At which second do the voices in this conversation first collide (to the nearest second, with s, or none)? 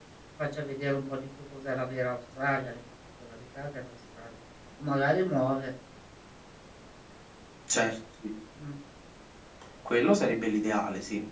none